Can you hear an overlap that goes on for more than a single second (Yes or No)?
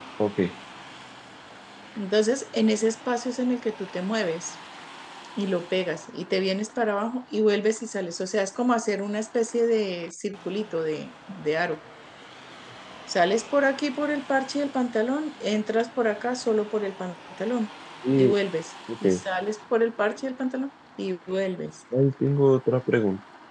No